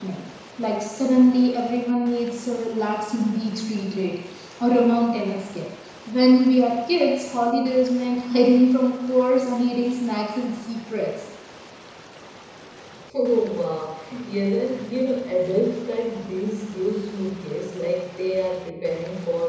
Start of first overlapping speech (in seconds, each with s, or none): none